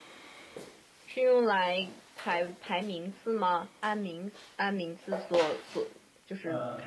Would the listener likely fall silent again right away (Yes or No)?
Yes